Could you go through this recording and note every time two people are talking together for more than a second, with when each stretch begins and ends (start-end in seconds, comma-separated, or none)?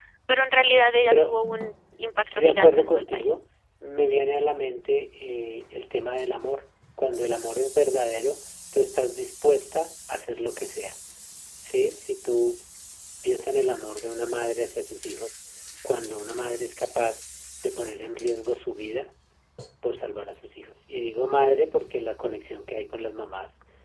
2.1-3.4